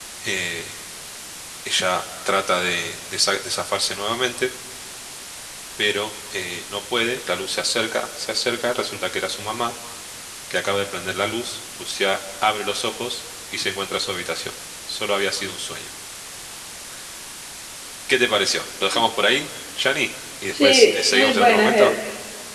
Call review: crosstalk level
present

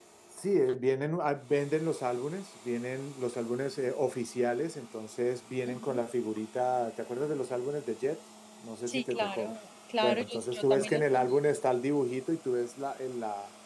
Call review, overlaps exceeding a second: present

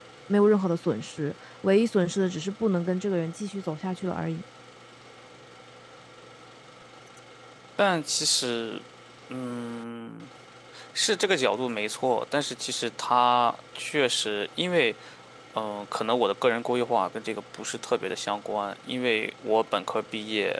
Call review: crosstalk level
none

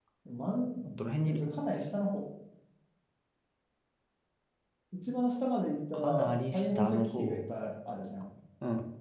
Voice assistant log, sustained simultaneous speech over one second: present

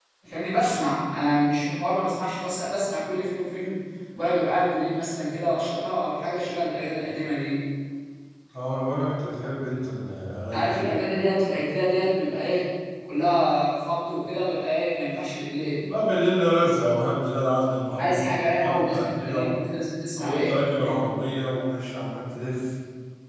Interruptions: present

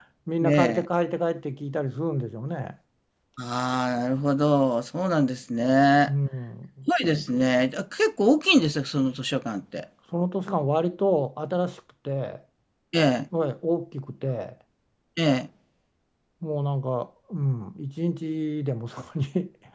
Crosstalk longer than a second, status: none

